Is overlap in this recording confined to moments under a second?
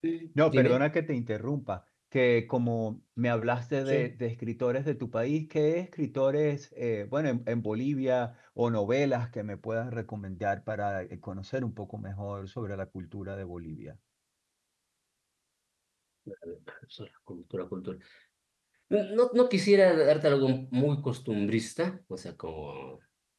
Yes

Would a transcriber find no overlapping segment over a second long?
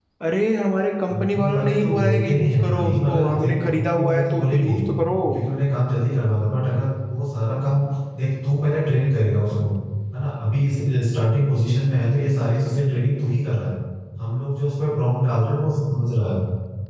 No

